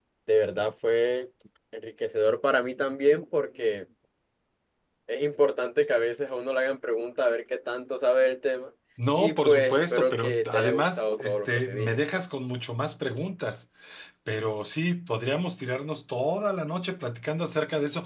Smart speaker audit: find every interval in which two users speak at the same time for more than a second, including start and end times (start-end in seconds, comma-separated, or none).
9.2-12.0